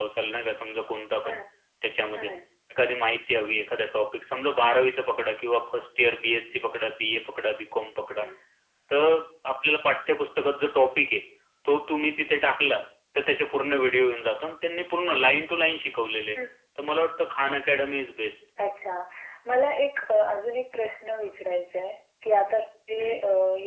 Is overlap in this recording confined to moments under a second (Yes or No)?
Yes